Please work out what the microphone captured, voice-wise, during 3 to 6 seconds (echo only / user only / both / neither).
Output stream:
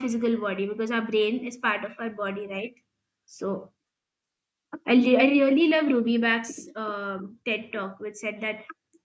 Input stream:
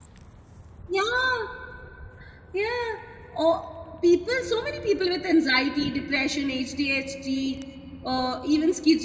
user only